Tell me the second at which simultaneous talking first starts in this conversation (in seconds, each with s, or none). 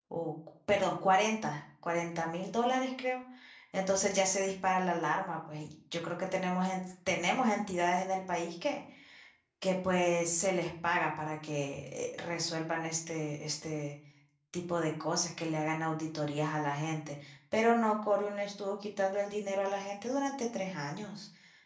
none